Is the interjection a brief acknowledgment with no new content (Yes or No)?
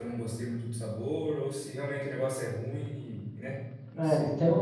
No